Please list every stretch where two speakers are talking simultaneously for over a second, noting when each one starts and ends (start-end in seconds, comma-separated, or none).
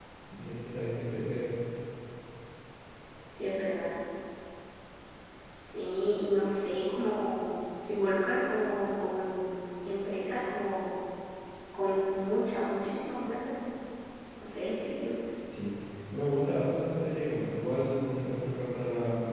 none